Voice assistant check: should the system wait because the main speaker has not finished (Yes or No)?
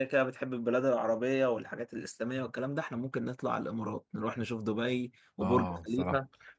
No